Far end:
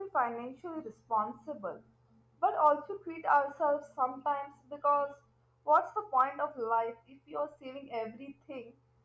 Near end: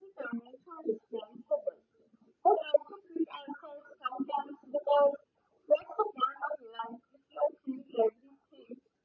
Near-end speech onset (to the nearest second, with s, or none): none